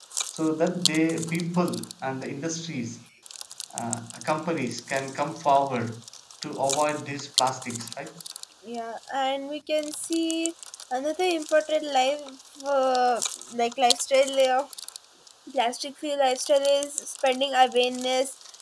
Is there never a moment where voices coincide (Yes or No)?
Yes